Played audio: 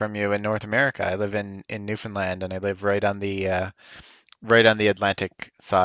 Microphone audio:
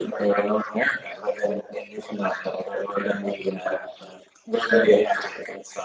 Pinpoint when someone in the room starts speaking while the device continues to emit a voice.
none

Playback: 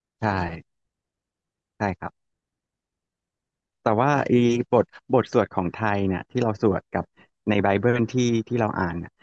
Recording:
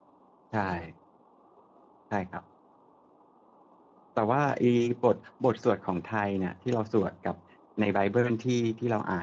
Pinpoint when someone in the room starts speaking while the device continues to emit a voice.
none

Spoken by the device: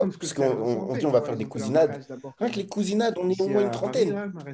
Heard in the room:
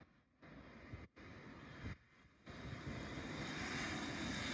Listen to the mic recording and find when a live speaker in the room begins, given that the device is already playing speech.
none

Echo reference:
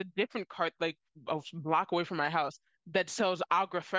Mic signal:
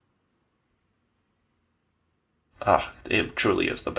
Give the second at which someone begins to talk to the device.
2.6 s

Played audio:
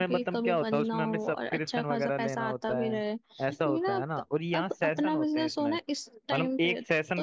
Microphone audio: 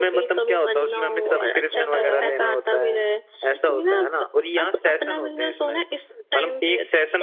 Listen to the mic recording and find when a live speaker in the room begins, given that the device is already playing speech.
0.5 s

